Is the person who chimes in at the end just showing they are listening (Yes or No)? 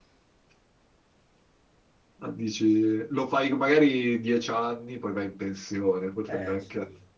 Yes